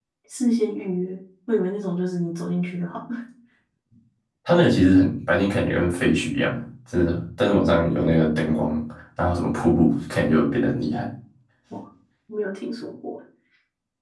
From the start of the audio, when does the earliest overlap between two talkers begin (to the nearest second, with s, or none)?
none